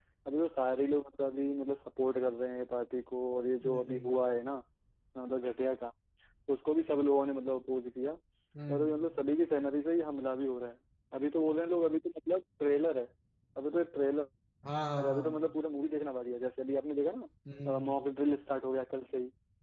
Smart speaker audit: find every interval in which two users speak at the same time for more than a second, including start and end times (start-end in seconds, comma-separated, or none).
none